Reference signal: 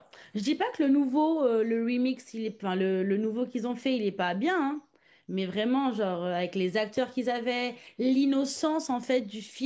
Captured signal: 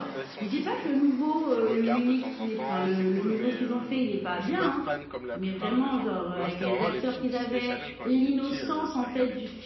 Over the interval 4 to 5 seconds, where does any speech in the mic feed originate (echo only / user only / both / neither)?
both